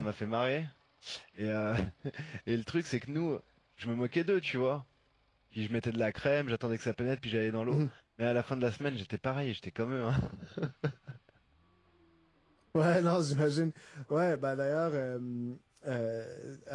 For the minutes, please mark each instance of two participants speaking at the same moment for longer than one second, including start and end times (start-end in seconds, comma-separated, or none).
none